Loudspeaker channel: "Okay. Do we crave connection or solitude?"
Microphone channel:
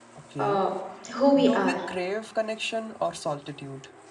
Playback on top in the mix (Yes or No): No